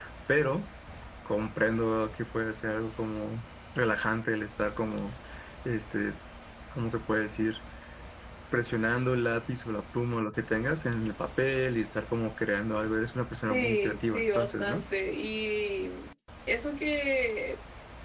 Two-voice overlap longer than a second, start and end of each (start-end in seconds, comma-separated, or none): 13.5-14.8